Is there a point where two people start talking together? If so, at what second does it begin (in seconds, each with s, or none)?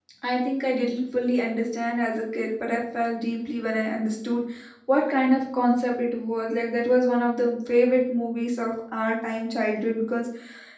none